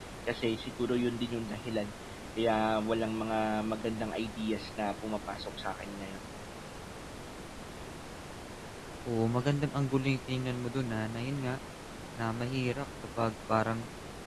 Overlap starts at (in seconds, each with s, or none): none